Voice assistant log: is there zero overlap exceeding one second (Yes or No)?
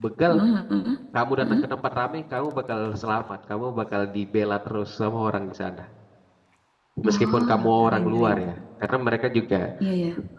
No